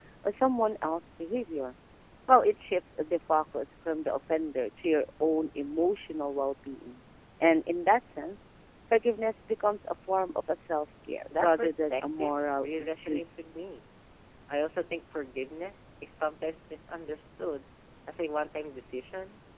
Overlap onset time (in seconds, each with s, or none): 11.3 s